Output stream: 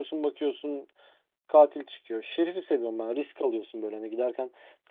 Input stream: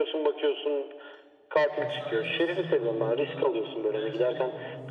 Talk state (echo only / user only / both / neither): both